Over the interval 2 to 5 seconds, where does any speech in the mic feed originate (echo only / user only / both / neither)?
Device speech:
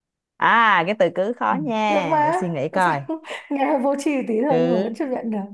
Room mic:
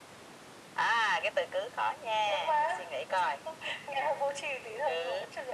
echo only